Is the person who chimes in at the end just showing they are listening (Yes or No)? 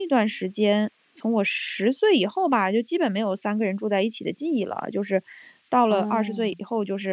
Yes